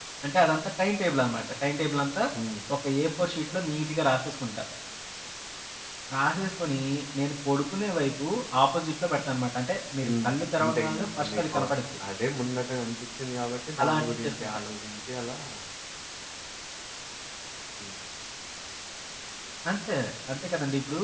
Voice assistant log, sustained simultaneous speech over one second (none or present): present